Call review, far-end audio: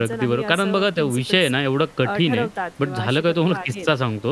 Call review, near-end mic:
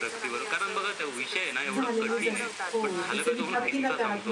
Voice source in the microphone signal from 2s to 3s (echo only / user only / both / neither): both